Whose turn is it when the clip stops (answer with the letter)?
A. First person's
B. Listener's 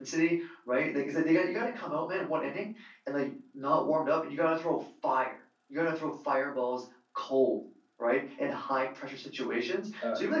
A